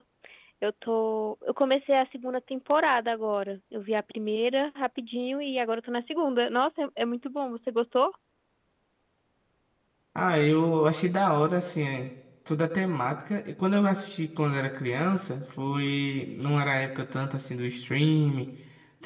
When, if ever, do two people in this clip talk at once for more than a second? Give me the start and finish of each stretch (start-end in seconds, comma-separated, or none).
none